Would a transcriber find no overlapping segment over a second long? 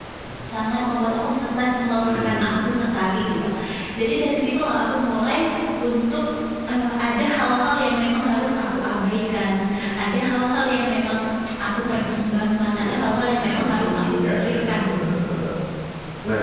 No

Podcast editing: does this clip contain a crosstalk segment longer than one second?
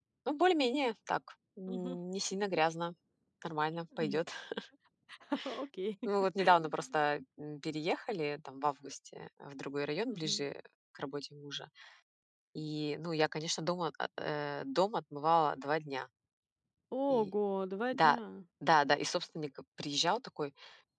No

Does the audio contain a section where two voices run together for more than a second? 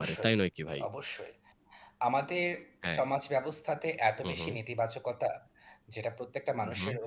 No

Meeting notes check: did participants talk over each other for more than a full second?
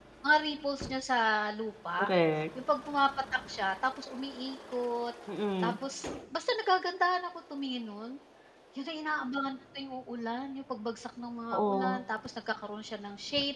No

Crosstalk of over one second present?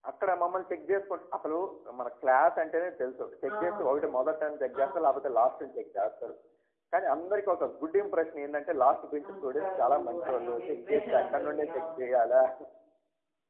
Yes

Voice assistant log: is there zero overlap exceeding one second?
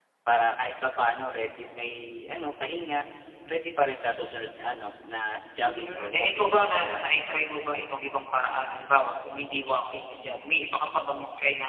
No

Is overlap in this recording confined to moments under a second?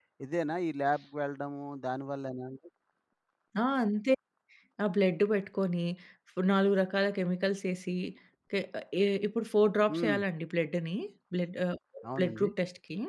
Yes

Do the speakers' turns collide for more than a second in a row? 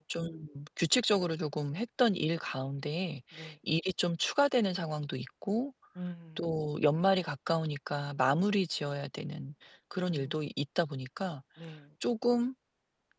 No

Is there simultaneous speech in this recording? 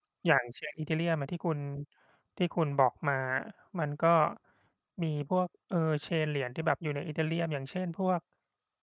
No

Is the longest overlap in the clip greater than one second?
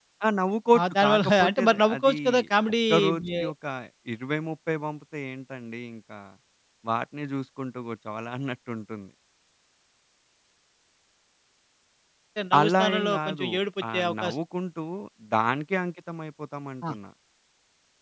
Yes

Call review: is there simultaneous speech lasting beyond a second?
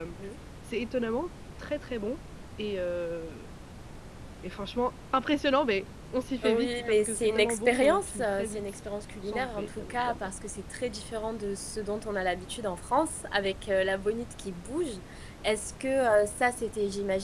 Yes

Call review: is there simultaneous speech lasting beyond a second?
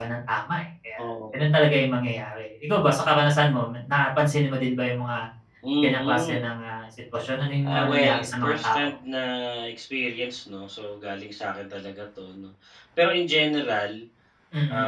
Yes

